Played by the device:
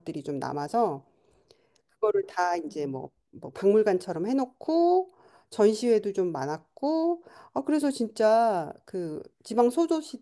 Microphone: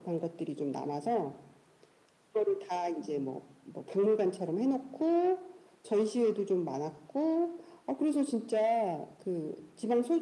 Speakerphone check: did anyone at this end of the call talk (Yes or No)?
No